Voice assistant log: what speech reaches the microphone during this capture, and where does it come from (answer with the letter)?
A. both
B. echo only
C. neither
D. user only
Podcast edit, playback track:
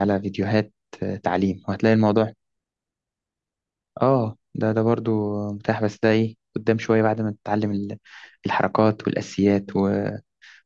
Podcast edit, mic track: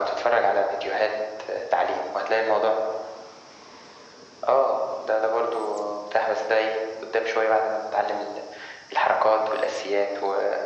B